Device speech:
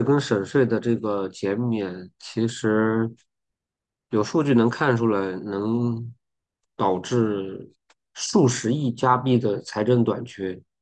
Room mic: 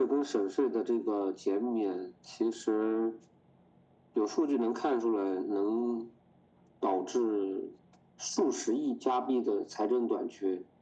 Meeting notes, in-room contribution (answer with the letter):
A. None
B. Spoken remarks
A